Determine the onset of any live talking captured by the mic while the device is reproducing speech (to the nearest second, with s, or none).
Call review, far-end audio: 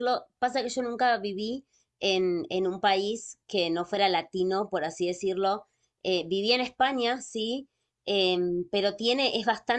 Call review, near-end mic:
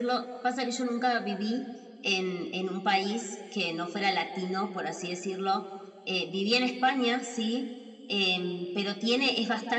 none